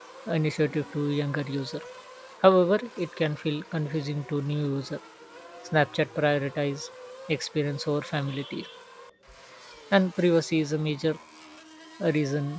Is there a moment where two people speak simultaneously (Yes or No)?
No